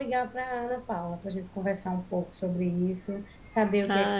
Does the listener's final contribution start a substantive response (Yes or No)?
No